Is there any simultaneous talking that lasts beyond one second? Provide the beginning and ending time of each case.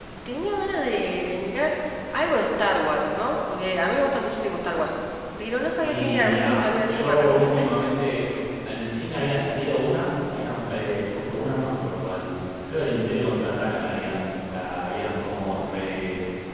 5.8-7.7

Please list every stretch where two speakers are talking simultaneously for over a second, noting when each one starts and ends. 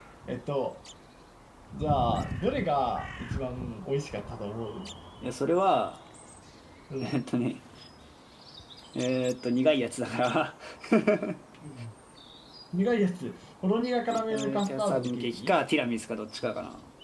14.3-15.5

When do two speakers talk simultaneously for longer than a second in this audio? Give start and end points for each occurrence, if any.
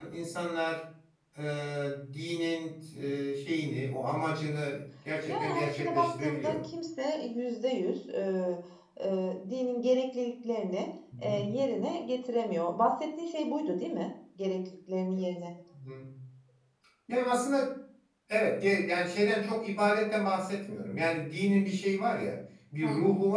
5.3-6.6

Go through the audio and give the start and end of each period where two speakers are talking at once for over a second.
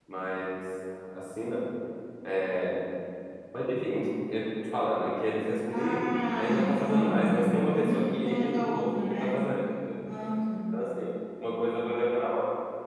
5.7-9.4

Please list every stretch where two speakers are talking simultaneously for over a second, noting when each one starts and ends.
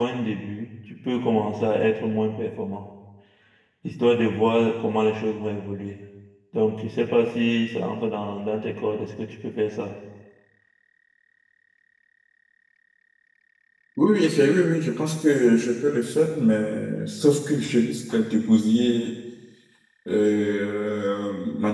none

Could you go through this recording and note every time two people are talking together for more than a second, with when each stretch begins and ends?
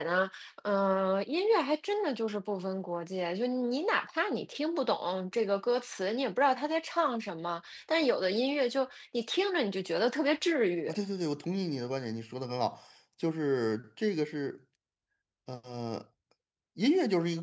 none

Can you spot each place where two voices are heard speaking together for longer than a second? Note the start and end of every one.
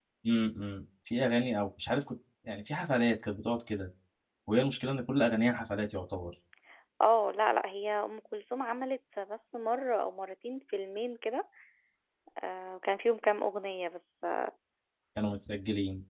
none

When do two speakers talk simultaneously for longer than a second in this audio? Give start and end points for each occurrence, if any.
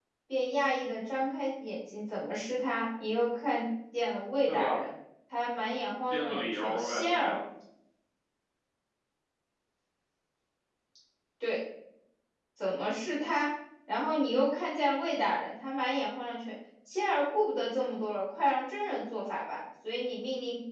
6.1-7.4

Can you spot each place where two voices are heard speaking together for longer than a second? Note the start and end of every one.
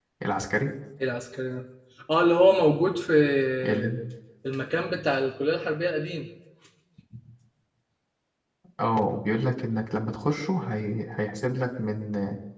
none

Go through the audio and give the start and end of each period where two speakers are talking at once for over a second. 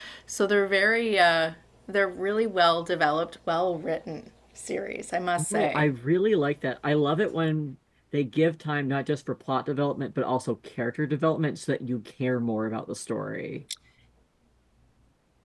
none

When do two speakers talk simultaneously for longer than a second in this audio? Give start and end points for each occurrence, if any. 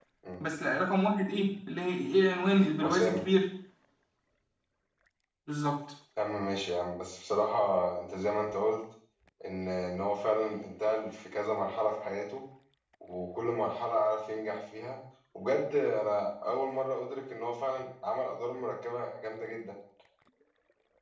none

